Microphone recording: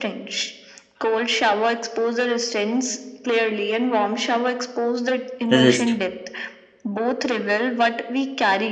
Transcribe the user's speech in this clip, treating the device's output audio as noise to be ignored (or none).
resists.